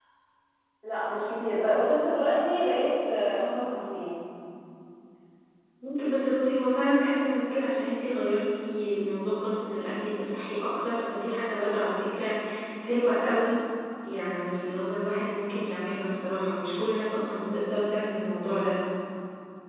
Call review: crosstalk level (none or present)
none